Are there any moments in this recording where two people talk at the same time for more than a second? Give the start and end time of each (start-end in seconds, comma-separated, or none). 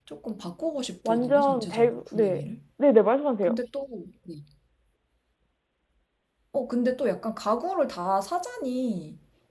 1.0-2.4